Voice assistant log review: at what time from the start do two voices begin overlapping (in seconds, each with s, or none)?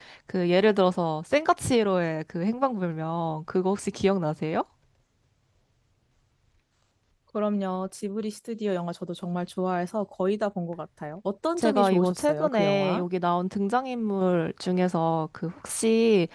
11.6 s